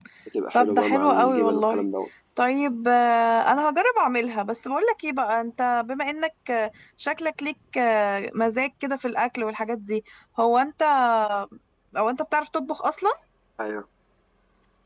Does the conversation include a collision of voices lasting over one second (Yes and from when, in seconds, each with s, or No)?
Yes, from 0.5 s